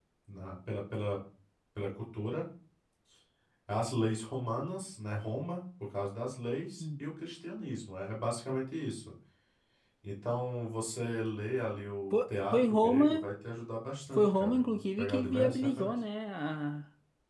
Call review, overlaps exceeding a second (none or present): present